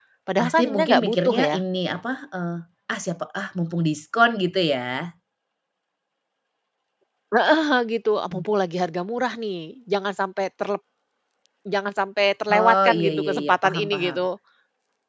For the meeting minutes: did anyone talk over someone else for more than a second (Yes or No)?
Yes